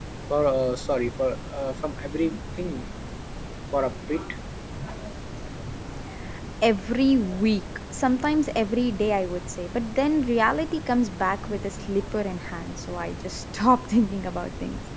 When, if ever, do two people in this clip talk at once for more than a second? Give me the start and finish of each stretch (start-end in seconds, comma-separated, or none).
none